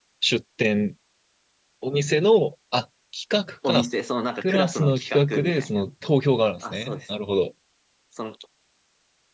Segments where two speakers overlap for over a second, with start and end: 4.4-5.8

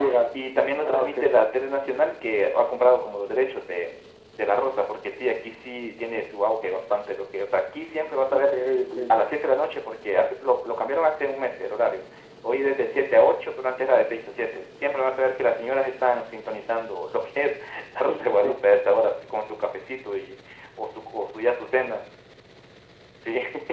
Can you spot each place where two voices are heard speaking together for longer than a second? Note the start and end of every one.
none

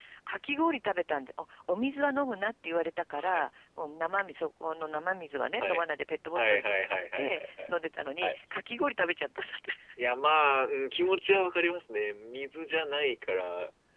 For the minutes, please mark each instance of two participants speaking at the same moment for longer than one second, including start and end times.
6.4-7.7

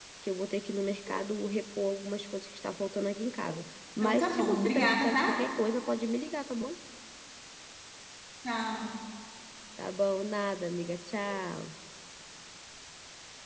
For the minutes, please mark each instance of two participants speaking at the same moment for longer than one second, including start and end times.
4.0-5.2

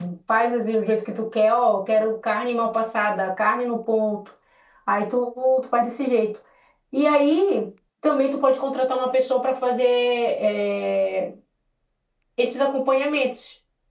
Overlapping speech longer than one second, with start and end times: none

